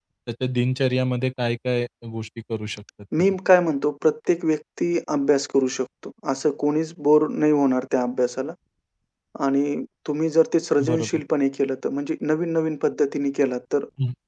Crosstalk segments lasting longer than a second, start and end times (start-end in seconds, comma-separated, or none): none